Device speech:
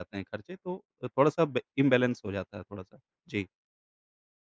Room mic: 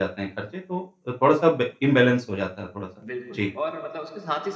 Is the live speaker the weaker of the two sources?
Yes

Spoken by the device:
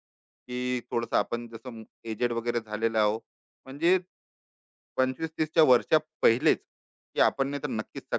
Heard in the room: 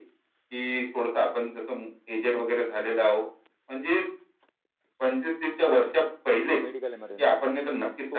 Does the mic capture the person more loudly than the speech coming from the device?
No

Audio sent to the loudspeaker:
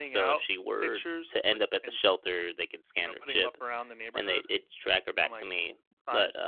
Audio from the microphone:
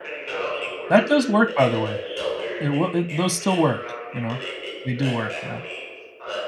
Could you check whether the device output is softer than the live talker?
Yes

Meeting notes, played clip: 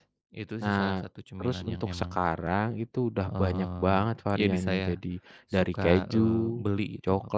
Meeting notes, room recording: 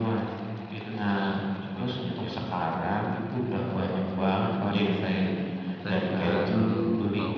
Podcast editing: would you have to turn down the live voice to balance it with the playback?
No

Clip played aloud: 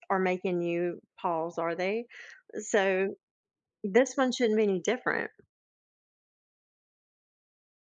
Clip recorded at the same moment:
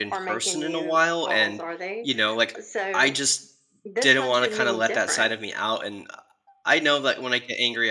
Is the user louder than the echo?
Yes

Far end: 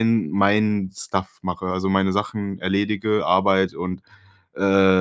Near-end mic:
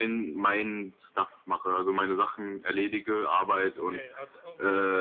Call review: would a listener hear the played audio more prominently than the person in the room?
Yes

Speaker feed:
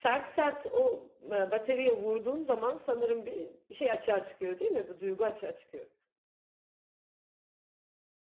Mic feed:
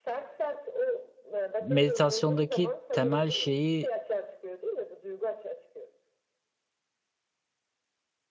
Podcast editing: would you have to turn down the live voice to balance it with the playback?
Yes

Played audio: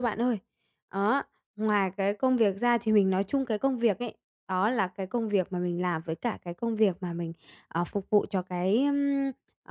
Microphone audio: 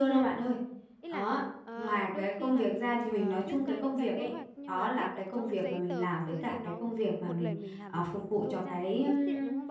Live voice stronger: No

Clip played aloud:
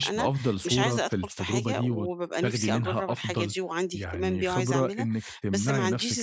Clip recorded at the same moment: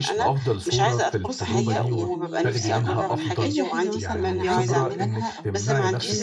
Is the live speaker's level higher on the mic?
No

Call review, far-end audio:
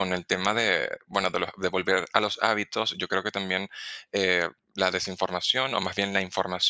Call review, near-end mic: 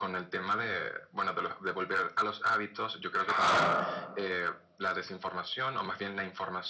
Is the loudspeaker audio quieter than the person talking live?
Yes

